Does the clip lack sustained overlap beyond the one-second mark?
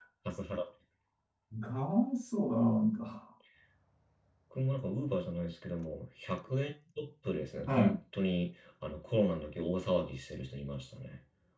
Yes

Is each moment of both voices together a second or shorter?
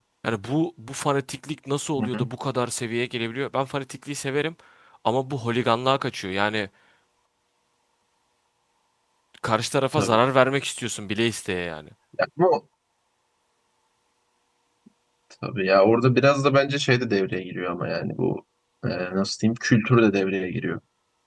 Yes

